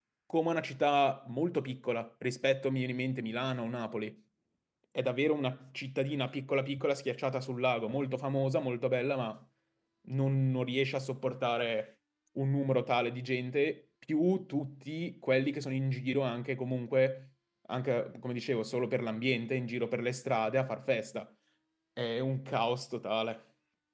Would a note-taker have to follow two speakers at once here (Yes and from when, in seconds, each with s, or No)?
No